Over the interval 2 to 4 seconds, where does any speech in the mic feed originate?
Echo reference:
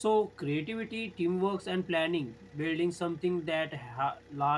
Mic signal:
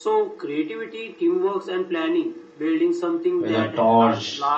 both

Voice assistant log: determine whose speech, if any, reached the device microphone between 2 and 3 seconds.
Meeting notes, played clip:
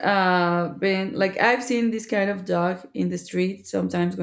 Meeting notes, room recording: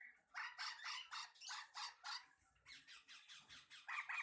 neither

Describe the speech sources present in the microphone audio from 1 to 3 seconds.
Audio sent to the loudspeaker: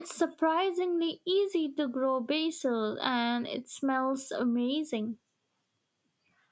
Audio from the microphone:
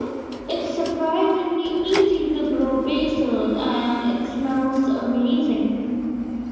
echo only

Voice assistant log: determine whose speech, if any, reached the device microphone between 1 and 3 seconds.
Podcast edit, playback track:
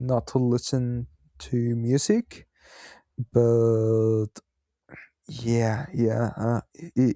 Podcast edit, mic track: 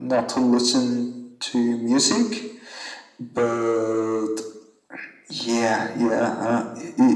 echo only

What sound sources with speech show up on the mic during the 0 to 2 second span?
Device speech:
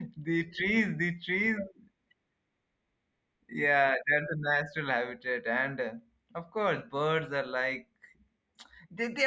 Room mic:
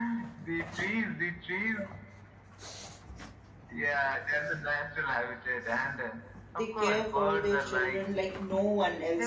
echo only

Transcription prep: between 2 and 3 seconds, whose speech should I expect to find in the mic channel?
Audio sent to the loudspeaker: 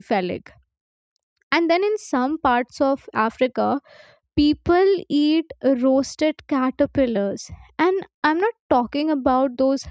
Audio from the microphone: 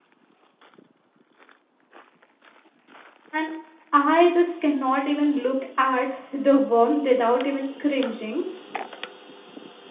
neither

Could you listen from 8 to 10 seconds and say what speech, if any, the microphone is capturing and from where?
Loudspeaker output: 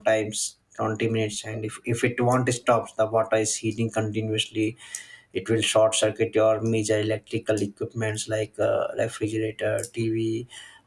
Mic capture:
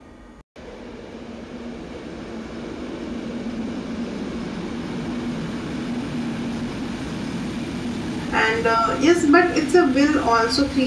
user only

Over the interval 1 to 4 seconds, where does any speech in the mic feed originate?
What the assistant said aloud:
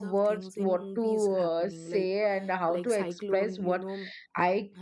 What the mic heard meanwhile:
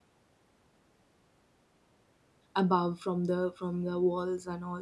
user only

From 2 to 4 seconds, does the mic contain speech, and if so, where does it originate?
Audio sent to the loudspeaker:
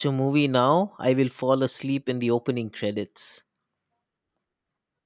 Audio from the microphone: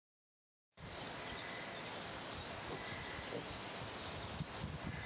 neither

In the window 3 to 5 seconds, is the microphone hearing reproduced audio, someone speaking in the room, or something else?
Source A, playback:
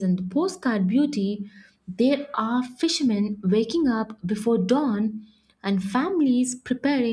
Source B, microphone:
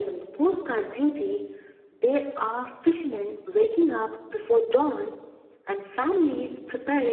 echo only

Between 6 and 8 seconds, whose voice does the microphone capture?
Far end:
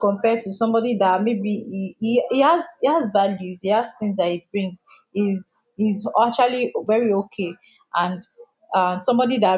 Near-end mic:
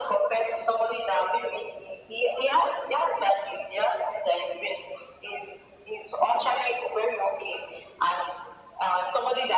echo only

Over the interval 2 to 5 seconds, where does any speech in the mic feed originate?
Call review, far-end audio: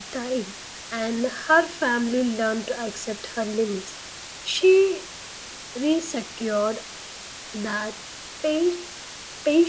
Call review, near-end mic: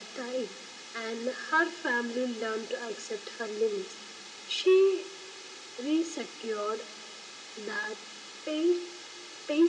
echo only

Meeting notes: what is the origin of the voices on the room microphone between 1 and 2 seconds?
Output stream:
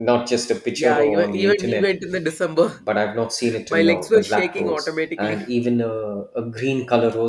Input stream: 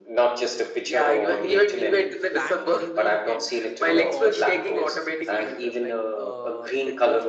both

